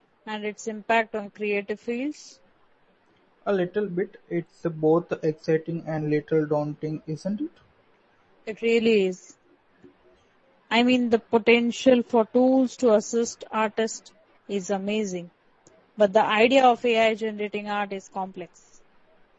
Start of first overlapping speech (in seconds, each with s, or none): none